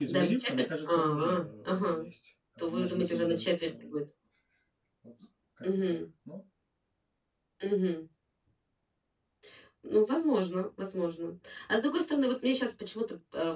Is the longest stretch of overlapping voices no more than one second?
No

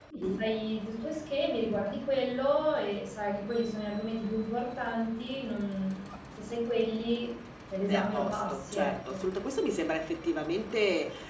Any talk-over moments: Yes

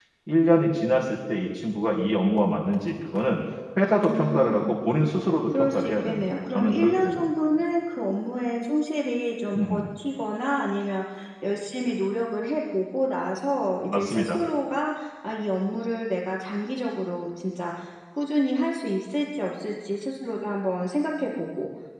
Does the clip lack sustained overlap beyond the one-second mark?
No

